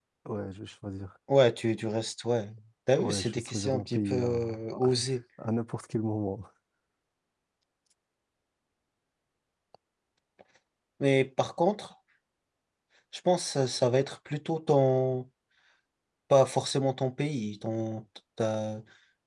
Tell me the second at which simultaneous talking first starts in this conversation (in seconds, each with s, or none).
3.0 s